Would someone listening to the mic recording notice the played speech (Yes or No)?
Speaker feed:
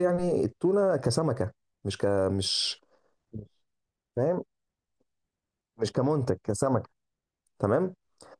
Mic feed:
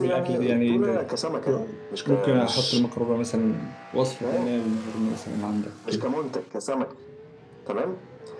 Yes